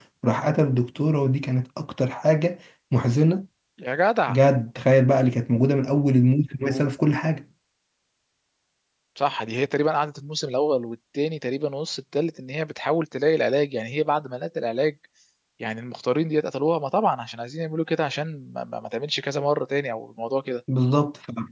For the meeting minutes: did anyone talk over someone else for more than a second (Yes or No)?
No